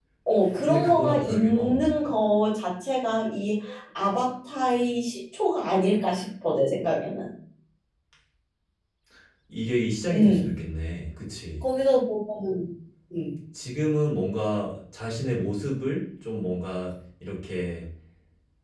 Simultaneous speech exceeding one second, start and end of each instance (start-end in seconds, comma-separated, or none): 0.6-1.9